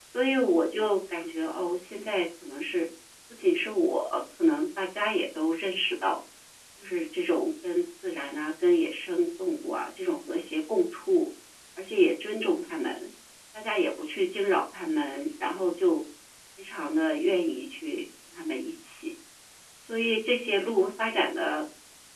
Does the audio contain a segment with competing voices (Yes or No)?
No